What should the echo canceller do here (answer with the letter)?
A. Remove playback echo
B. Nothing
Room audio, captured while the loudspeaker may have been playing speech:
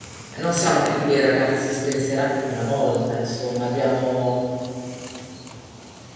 B